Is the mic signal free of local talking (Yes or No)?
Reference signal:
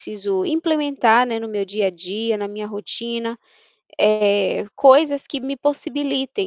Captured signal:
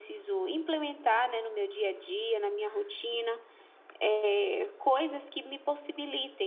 Yes